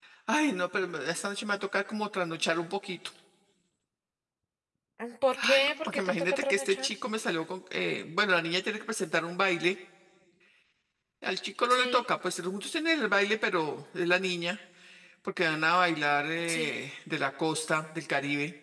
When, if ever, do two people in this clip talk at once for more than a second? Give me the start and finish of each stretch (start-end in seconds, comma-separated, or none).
5.4-6.9